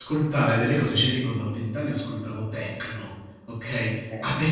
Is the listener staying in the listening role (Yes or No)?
Yes